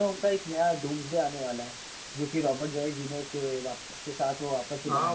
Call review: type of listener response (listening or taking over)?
taking over